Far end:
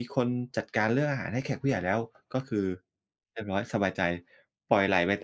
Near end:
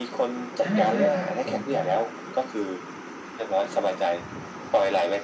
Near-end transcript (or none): ใช่ ๆ ใช่ครับผม ใช่ครับ